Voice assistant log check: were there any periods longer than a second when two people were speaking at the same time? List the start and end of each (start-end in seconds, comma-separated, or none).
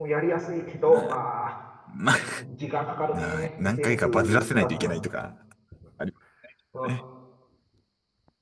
3.1-5.1